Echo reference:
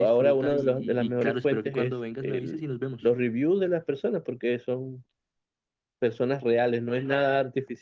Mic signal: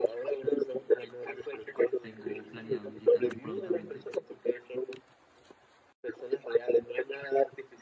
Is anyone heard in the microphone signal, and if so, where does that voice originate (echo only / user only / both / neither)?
both